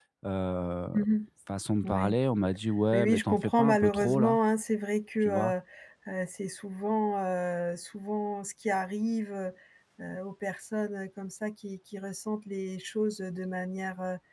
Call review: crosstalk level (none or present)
present